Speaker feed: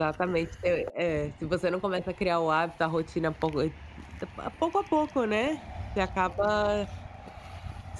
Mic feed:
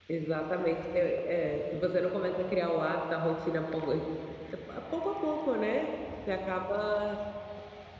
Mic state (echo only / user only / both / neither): echo only